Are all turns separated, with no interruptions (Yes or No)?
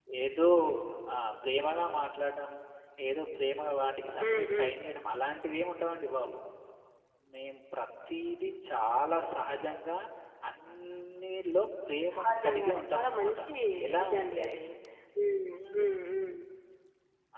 No